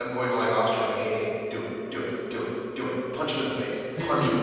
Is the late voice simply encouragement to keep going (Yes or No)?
No